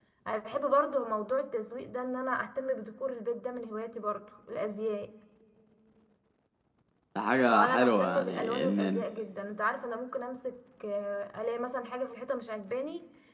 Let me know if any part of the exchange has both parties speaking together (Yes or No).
Yes